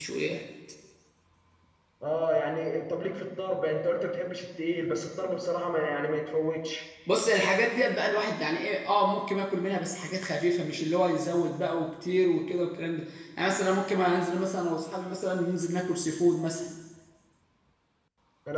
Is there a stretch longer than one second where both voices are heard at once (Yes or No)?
No